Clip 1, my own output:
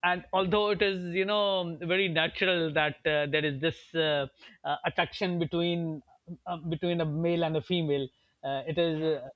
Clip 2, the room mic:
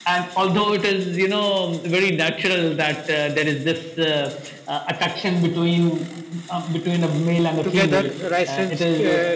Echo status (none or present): present